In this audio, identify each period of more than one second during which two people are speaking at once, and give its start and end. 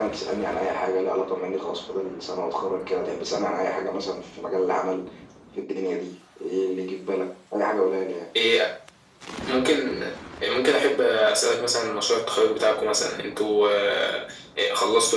none

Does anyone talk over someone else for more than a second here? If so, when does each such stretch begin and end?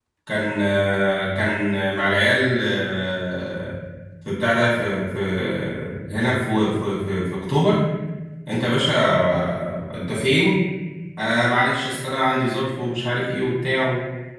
none

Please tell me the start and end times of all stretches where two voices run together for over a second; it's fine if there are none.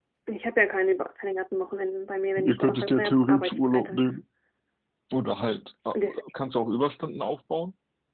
2.4-4.0

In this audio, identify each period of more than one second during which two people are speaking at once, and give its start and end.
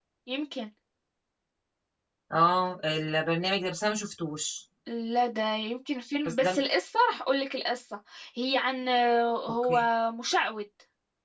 none

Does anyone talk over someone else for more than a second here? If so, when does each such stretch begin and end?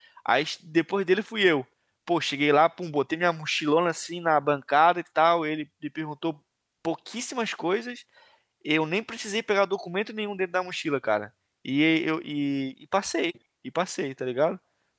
none

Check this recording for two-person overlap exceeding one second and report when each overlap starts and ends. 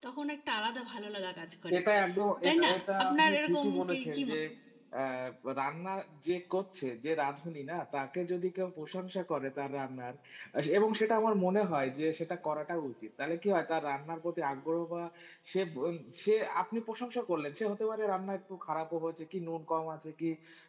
2.4-4.2

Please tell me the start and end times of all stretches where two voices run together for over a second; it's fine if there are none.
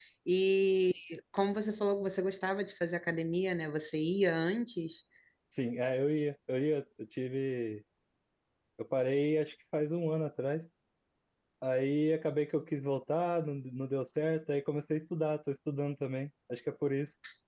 none

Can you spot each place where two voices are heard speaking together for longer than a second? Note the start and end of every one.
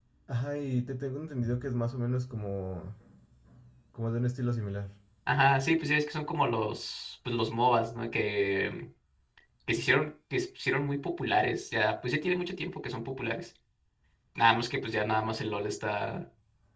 none

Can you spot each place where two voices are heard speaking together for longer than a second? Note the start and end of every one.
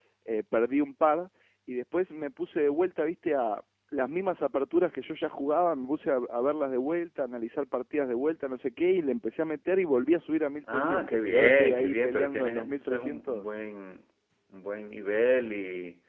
10.7-13.4

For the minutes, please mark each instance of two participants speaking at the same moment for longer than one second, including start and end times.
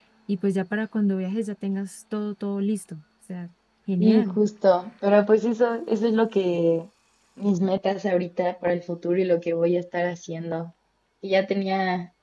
none

